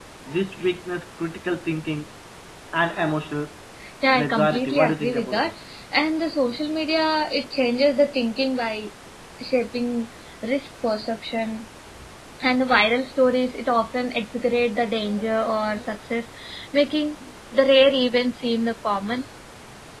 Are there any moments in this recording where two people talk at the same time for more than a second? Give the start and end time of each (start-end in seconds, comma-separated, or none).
4.1-5.5